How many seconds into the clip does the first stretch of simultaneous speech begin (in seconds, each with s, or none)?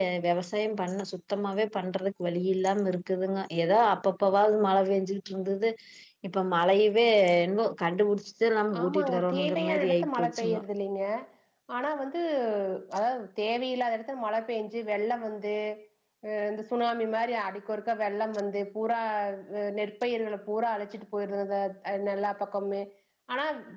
8.7 s